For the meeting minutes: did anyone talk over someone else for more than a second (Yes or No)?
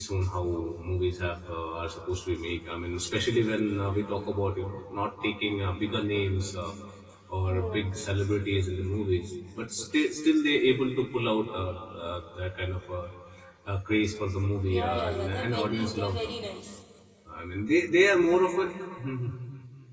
Yes